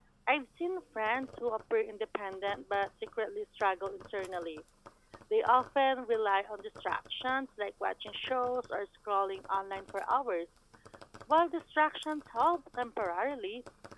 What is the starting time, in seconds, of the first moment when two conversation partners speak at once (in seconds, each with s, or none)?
none